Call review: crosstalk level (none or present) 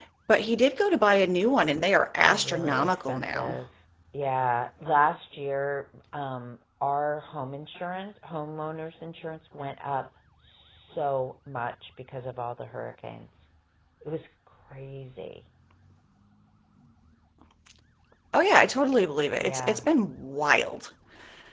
present